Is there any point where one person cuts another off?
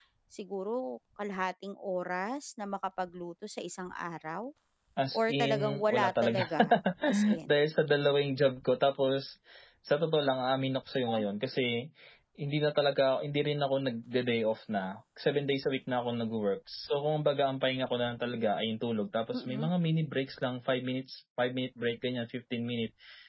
Yes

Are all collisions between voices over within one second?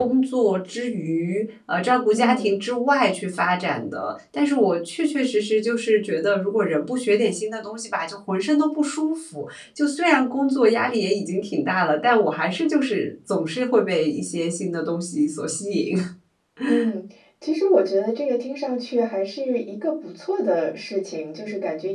Yes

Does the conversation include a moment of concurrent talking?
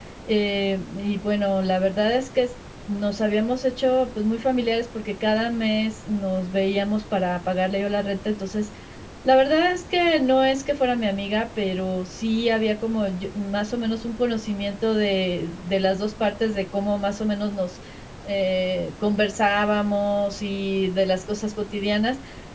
No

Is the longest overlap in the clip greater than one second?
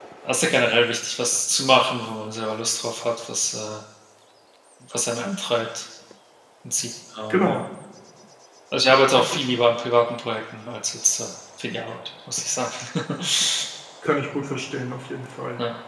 No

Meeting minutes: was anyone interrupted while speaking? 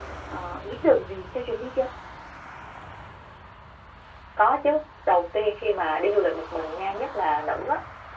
No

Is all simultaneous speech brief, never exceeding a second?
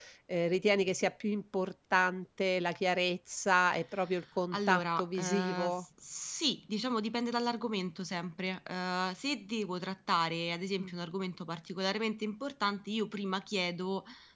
No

